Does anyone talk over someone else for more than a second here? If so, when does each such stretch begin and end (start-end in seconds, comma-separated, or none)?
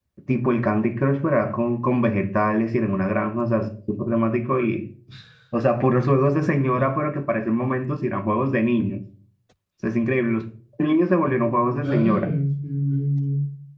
none